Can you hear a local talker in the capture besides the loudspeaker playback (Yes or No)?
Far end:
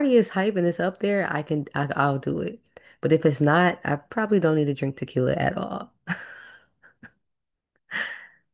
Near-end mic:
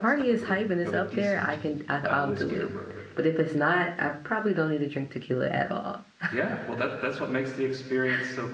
Yes